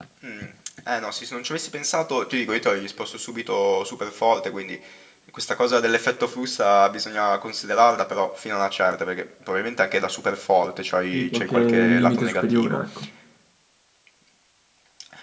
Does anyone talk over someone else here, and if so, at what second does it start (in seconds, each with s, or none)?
11.1 s